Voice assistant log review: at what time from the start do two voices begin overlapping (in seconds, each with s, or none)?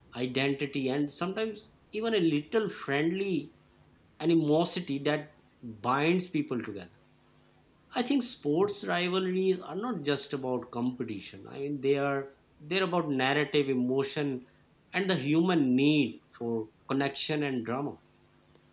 none